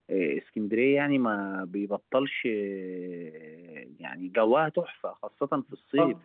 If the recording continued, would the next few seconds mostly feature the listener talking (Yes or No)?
No